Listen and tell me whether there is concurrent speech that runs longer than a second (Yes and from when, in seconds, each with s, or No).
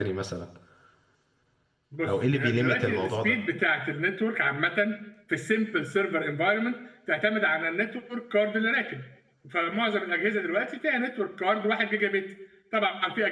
Yes, from 2.0 s